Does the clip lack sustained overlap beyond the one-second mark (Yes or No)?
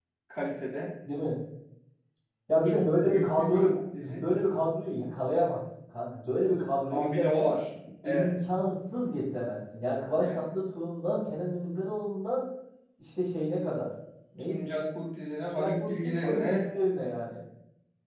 No